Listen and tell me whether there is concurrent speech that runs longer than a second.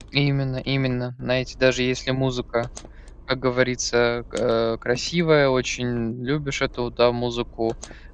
No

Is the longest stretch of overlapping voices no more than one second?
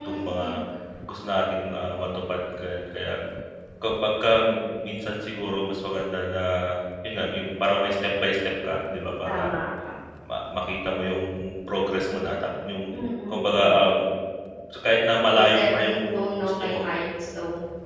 No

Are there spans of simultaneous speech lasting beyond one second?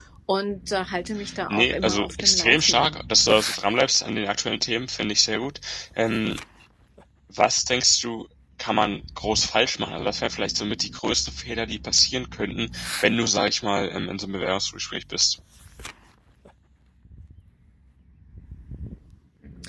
Yes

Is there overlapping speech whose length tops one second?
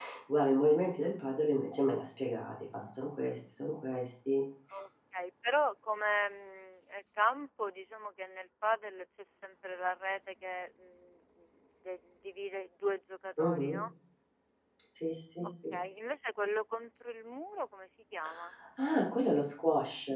No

